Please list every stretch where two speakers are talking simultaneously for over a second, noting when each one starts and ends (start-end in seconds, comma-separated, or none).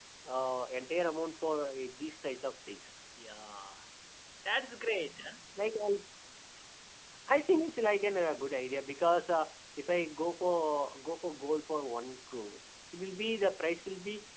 none